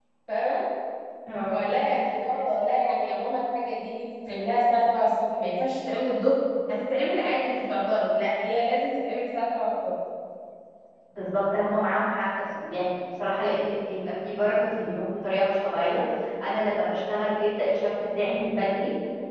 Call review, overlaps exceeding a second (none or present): none